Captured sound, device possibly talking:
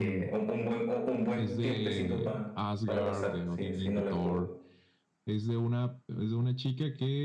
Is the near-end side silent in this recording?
No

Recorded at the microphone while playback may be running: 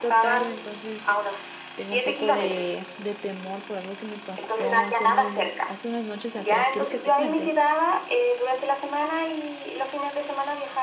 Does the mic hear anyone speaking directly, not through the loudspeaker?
Yes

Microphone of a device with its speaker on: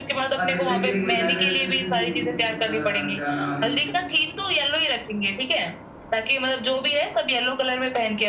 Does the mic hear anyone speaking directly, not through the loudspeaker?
Yes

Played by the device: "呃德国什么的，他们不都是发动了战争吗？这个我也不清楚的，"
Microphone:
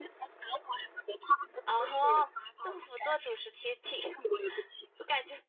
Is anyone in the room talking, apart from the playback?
Yes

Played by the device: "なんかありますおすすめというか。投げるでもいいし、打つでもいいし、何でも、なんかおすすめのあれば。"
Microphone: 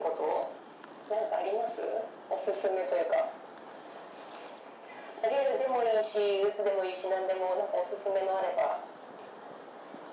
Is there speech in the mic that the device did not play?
No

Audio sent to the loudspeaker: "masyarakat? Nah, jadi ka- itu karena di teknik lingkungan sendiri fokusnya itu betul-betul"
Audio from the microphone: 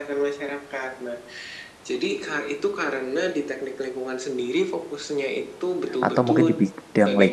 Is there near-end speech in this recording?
Yes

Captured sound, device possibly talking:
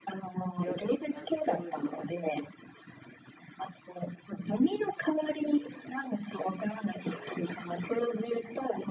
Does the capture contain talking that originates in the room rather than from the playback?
Yes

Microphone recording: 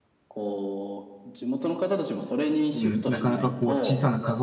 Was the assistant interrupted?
Yes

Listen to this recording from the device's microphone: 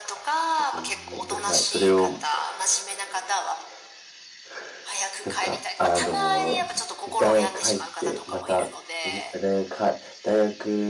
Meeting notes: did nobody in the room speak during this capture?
No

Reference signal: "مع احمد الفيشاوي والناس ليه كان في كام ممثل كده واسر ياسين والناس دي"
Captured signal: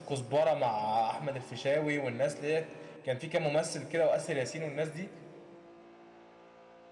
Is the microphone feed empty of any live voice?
Yes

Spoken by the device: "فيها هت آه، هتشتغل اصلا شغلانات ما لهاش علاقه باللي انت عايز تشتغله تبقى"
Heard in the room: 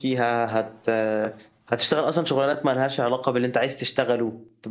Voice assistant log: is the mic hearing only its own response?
Yes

